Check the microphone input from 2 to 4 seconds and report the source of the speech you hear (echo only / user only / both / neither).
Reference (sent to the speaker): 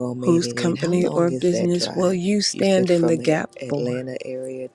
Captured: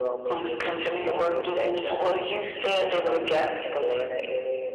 echo only